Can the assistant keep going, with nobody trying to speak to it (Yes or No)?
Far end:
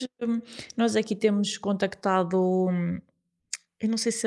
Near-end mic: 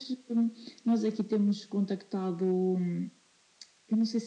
Yes